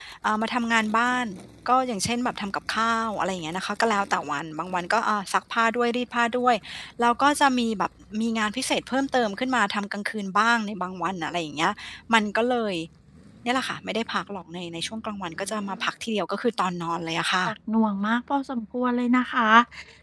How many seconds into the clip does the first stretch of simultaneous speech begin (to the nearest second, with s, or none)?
none